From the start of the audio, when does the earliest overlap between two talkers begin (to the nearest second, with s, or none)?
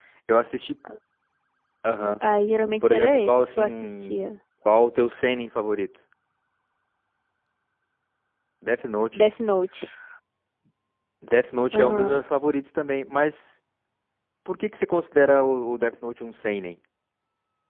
3 s